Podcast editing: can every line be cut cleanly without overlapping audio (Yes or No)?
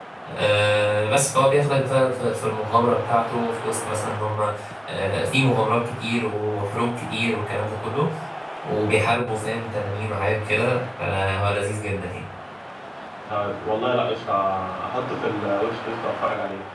Yes